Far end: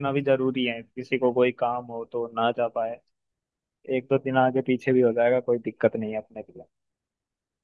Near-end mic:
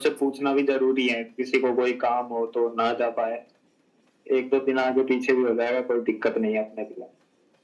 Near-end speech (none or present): none